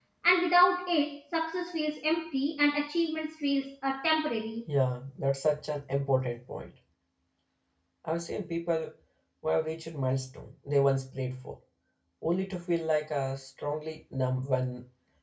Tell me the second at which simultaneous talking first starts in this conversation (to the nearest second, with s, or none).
none